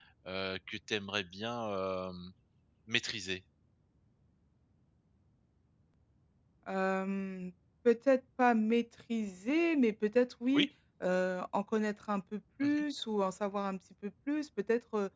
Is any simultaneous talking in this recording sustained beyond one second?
No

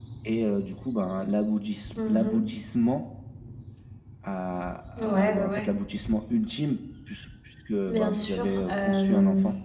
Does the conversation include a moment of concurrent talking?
Yes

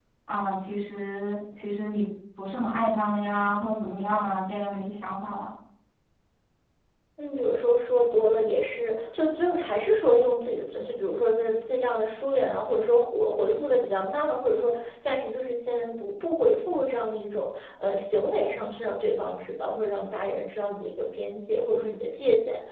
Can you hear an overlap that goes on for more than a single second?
No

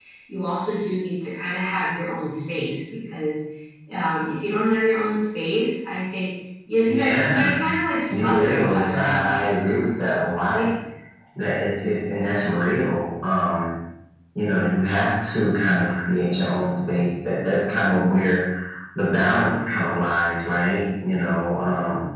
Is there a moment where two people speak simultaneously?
Yes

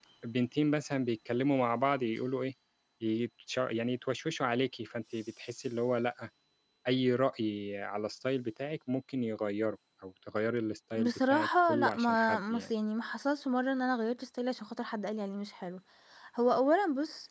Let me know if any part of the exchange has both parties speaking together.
Yes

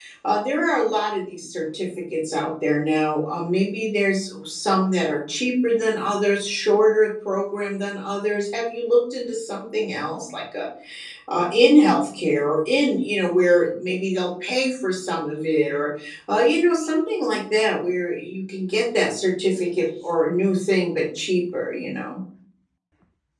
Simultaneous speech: No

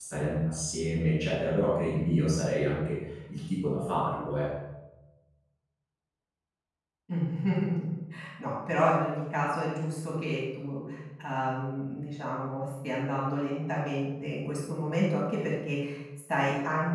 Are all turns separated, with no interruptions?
Yes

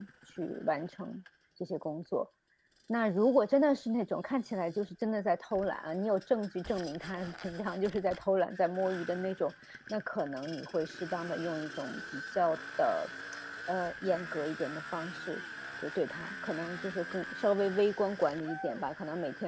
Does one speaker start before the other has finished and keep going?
No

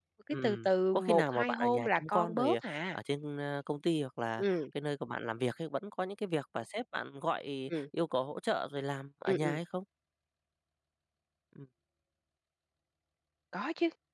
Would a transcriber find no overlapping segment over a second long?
No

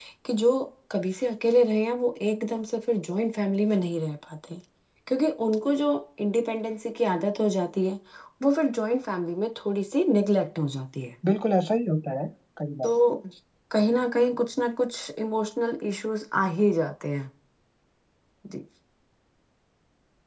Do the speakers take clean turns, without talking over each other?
Yes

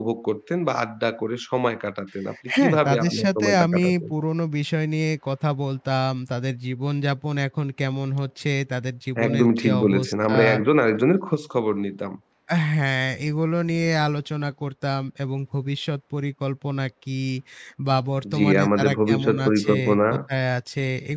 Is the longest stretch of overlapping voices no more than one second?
No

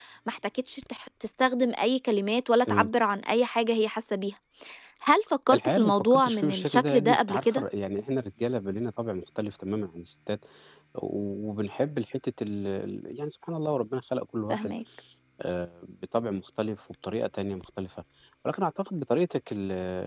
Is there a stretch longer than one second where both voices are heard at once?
Yes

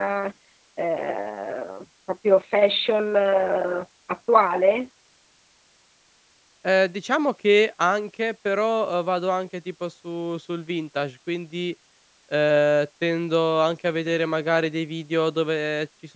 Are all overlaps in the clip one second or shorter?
Yes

